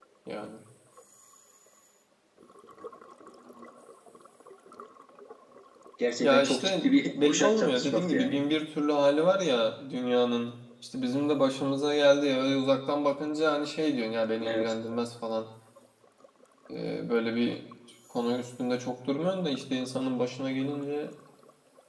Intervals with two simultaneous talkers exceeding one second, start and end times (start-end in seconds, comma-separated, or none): 6.2-8.4